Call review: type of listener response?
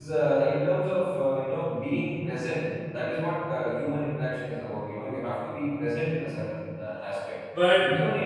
listening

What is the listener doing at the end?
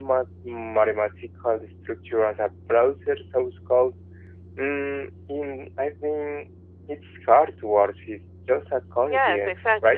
taking over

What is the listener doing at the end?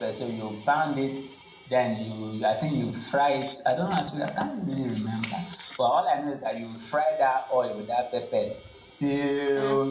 listening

